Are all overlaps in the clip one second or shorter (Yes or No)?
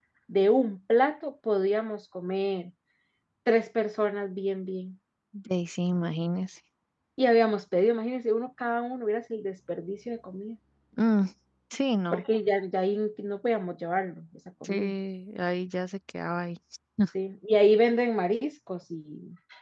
Yes